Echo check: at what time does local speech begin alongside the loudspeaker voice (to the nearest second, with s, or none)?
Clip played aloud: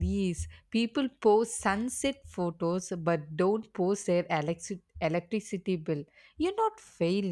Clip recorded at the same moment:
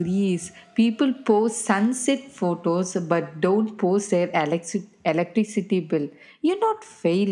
none